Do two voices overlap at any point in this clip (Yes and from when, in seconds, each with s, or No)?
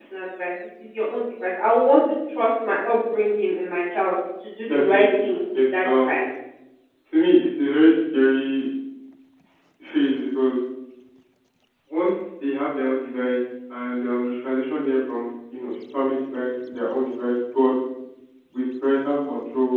Yes, from 4.7 s